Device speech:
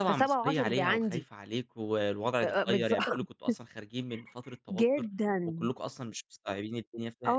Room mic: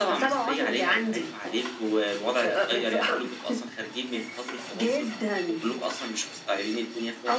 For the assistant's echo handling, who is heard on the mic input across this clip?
echo only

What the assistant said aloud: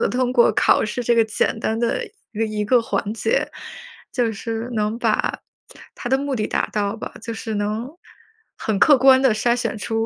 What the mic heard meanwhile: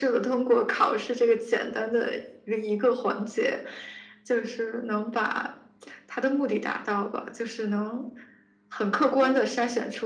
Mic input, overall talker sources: both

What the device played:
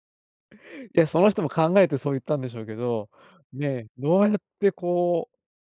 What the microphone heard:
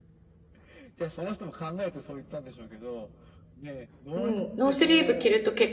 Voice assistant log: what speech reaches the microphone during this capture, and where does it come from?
both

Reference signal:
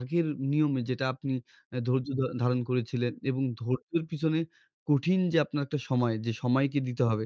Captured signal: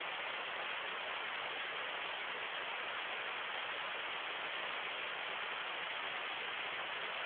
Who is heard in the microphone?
neither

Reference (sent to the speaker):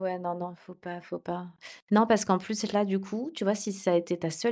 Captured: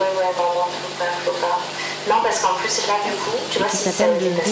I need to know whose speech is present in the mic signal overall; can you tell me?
both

